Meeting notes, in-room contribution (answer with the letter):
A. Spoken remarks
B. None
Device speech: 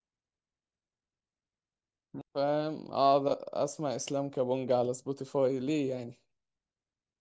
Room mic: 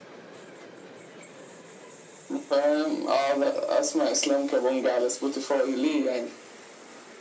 B